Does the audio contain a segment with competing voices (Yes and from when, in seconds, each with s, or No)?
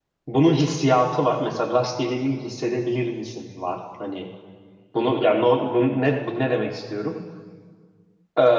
No